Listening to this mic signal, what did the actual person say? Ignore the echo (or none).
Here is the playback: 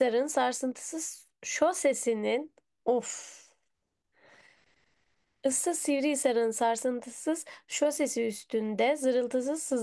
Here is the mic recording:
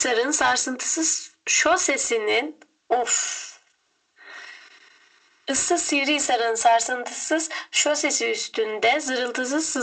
none